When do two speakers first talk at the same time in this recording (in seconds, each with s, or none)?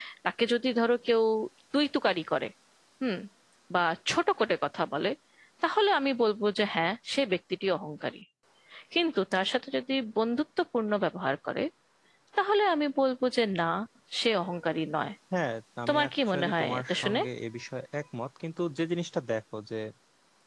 15.9 s